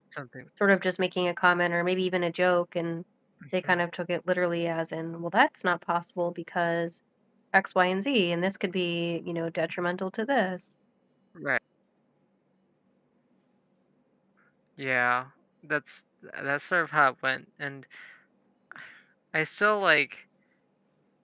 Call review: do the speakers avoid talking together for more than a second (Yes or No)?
Yes